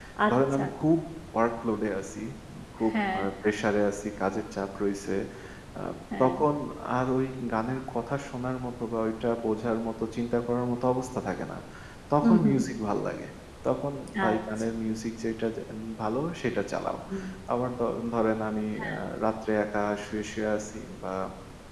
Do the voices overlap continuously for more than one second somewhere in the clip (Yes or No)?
No